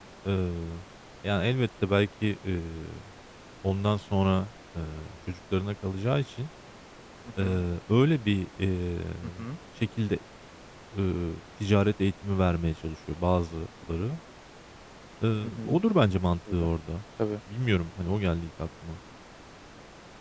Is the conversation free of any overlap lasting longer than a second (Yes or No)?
Yes